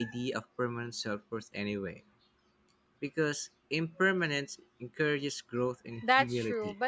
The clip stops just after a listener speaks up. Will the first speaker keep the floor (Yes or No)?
No